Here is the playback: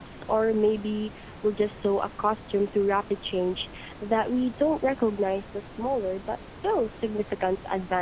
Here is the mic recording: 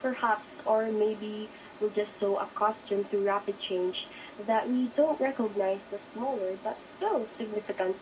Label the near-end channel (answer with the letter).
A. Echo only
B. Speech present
A